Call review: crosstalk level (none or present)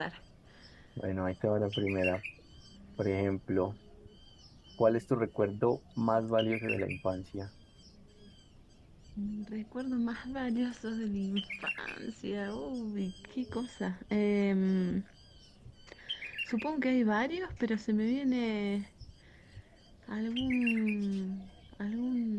none